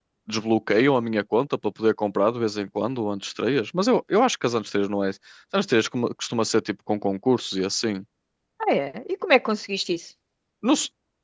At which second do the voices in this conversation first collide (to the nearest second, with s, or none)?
none